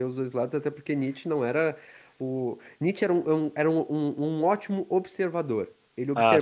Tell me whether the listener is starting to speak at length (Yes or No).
No